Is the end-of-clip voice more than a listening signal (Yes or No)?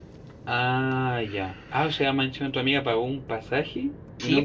Yes